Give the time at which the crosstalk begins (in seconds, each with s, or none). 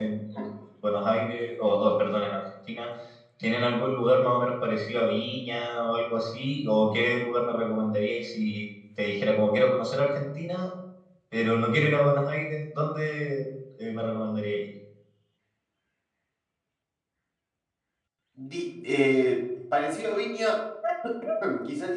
none